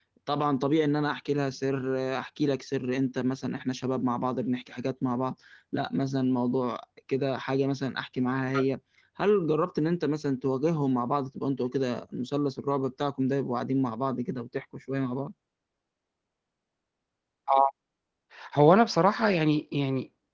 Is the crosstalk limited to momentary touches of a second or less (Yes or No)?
Yes